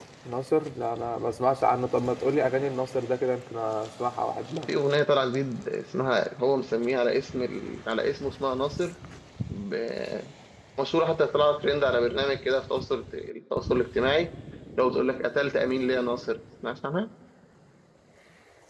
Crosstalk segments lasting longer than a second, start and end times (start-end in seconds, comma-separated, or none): none